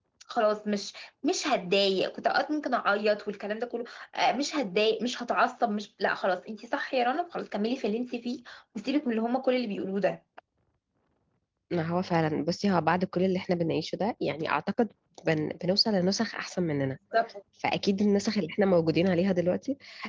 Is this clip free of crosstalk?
Yes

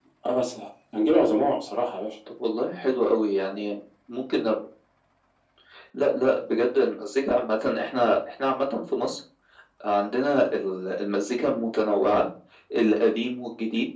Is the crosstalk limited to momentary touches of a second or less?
Yes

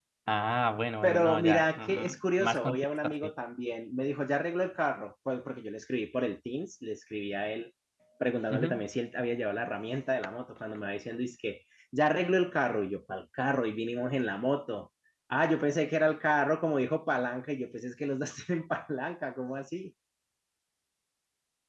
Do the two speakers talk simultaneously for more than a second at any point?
Yes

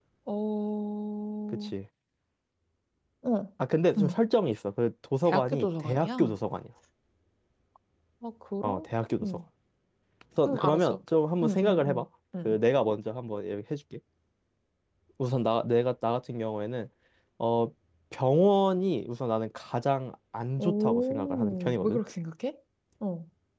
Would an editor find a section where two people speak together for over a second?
Yes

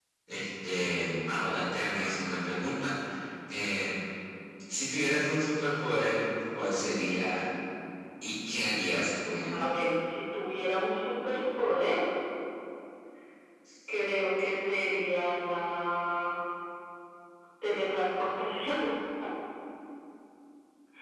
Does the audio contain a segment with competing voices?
No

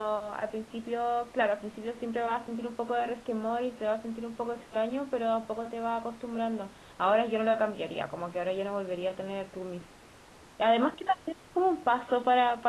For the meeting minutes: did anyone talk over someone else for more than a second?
No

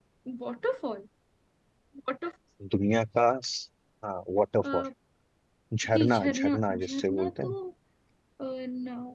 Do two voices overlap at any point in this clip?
Yes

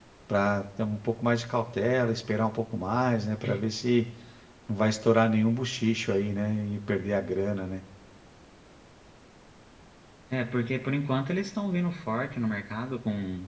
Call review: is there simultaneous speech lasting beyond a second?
No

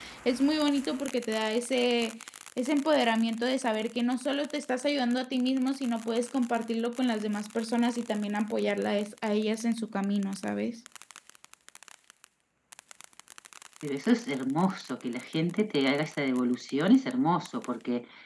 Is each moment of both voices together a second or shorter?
Yes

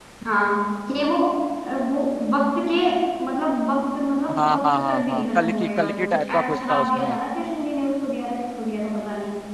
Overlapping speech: Yes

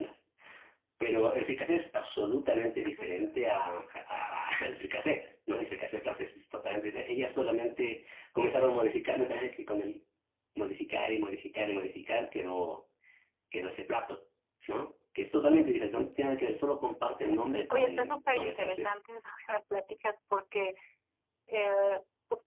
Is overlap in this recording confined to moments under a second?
No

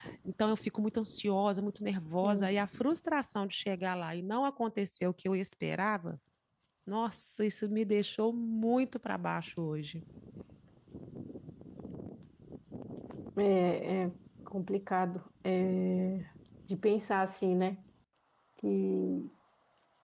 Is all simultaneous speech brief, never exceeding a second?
Yes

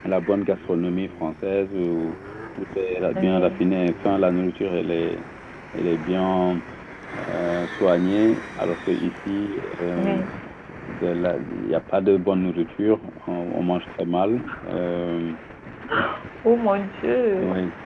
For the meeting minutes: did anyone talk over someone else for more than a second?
No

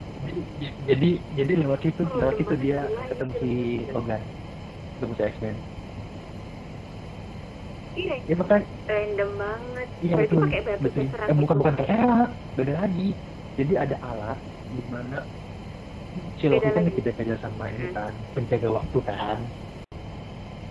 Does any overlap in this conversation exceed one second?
Yes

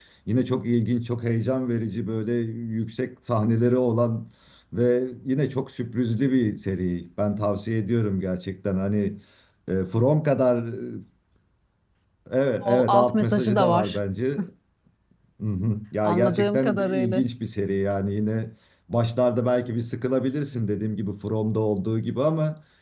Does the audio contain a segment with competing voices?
Yes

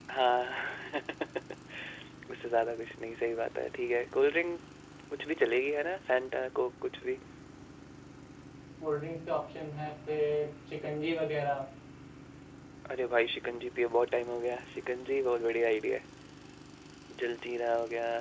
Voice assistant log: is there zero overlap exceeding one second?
Yes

